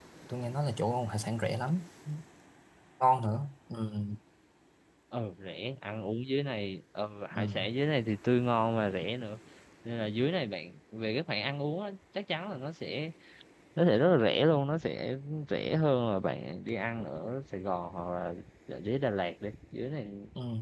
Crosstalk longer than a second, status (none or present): none